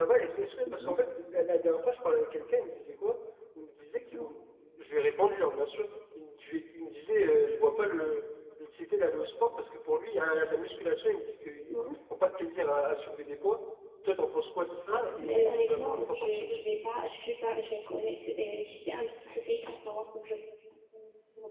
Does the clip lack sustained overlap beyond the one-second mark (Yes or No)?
No